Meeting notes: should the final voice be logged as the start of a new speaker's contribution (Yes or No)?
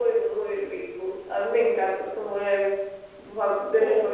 No